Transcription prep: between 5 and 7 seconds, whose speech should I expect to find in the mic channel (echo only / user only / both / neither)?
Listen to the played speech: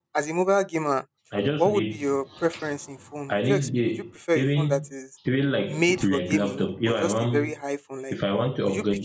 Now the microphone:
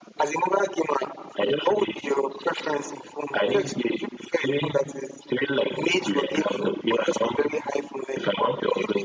echo only